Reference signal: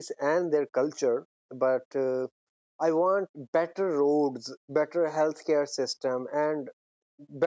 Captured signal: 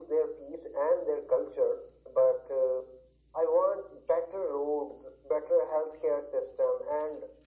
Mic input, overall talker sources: echo only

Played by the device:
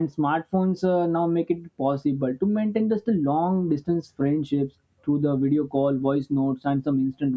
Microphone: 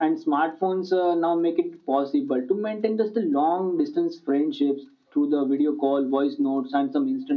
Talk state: echo only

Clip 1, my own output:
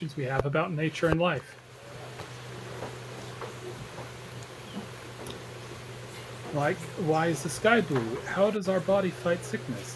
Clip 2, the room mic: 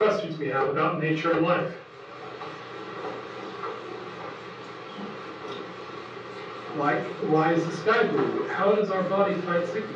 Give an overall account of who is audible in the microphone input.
echo only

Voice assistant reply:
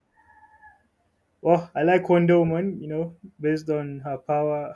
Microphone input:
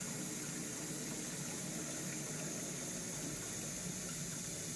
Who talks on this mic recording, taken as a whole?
neither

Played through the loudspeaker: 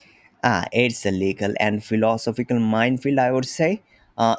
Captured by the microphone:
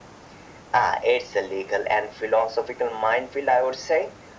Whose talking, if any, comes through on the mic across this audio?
echo only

